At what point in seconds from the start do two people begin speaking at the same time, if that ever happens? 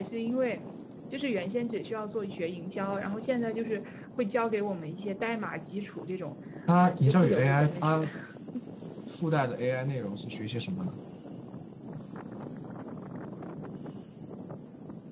6.8 s

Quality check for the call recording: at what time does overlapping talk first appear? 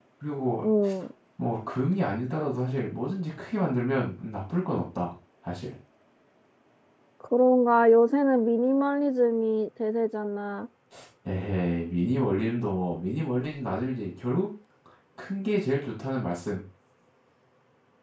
none

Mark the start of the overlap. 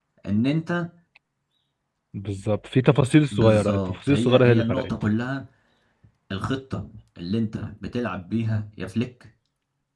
3.3 s

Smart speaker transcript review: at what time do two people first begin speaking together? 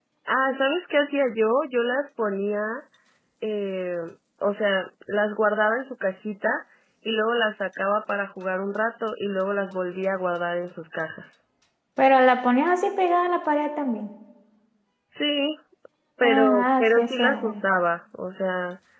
16.2 s

